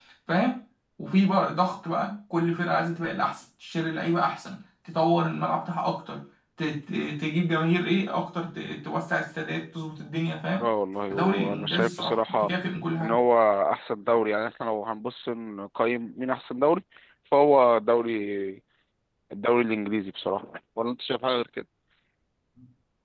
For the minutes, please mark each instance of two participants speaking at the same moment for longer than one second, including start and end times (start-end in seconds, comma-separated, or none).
11.1-12.5